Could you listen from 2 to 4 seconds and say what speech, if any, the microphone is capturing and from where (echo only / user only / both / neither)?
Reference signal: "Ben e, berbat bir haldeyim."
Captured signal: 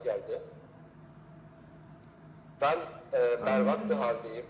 both